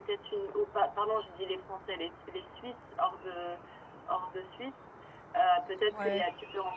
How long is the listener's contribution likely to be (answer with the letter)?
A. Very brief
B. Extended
A